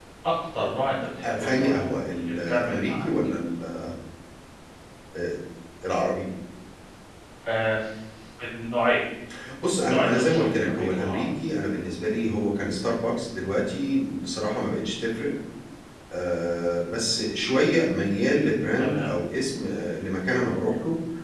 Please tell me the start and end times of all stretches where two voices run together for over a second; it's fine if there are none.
1.2-3.1, 9.8-11.3

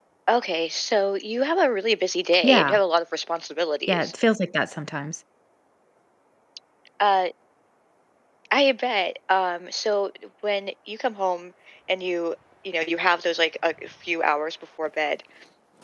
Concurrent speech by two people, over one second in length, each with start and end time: none

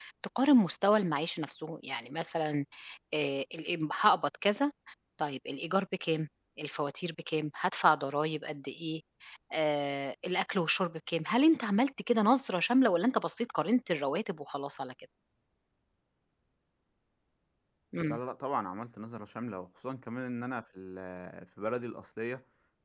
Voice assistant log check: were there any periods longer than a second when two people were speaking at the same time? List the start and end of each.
none

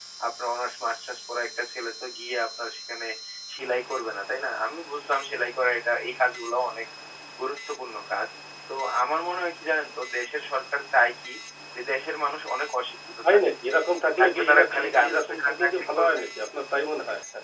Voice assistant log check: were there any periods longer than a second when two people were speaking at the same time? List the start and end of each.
14.2-16.2

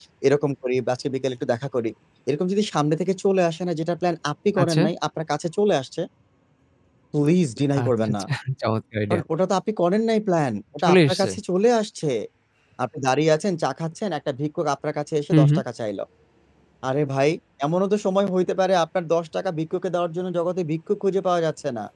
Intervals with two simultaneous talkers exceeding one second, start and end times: none

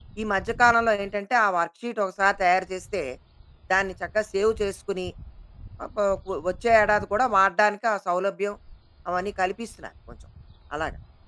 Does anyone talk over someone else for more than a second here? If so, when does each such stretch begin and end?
none

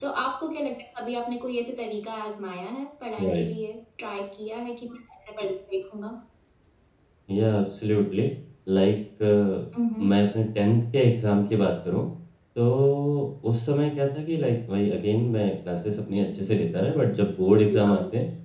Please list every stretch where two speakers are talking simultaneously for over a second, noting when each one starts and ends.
none

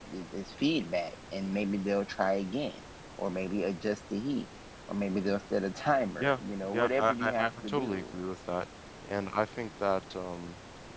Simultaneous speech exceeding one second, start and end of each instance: 6.2-8.0

